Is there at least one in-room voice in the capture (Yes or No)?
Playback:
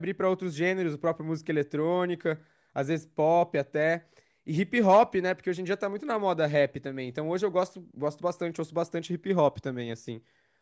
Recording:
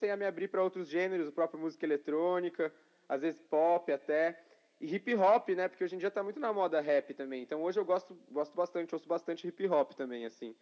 No